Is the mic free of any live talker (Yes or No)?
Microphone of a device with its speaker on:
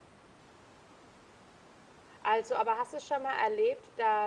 No